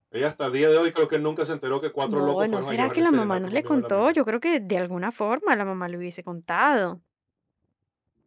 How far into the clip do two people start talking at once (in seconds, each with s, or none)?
2.0 s